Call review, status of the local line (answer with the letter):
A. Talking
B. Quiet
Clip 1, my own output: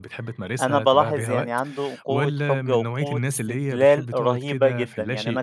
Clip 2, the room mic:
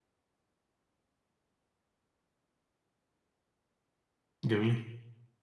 A